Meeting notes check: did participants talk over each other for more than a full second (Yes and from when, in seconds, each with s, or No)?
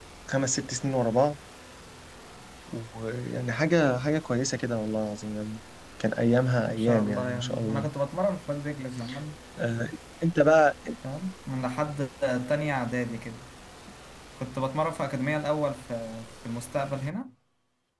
Yes, from 6.7 s